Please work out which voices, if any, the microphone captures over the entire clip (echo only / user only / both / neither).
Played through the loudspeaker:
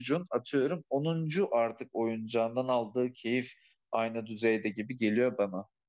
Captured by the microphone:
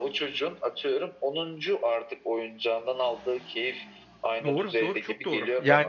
both